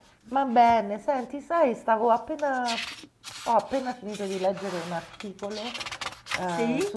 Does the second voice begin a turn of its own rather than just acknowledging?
No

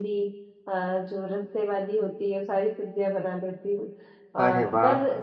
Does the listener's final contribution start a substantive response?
No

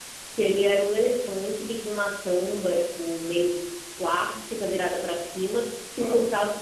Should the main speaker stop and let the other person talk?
No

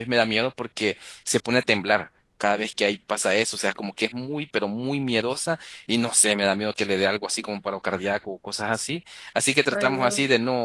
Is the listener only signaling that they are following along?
Yes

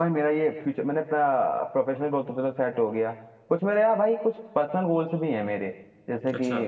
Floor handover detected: No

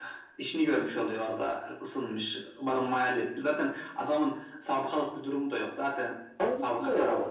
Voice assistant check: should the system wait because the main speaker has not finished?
No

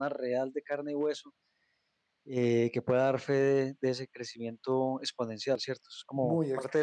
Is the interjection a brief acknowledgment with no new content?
No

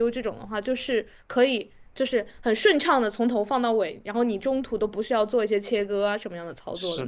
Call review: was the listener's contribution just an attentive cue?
No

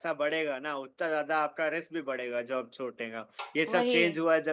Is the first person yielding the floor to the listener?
No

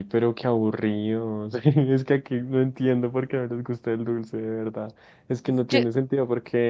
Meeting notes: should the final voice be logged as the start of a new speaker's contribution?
No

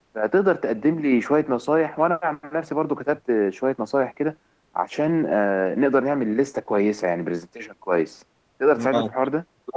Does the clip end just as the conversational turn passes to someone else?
Yes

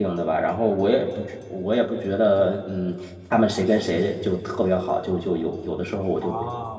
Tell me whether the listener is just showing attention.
No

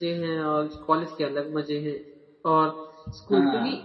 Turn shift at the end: No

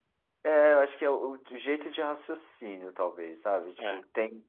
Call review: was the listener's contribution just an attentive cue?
Yes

